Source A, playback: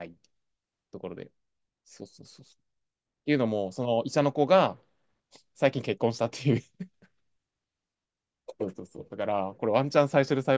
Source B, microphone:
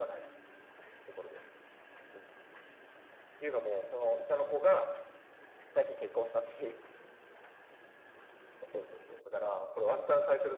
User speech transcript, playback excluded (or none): none